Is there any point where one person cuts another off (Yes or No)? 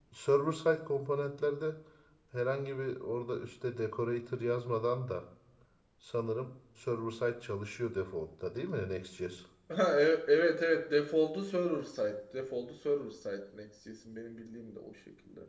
No